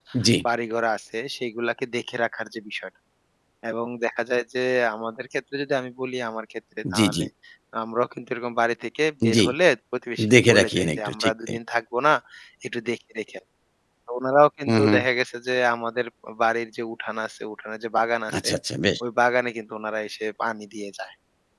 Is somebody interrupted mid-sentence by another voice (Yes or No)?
Yes